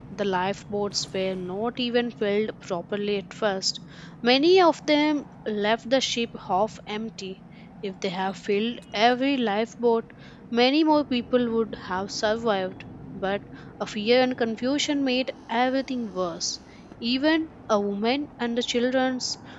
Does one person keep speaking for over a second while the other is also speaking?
No

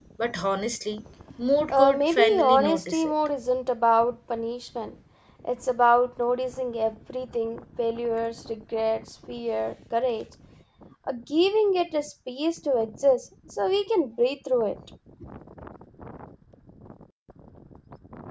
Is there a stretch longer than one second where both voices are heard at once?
Yes, from 1.7 s

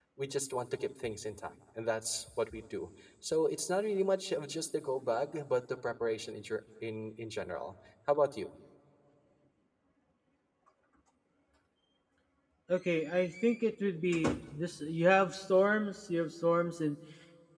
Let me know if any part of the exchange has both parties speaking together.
No

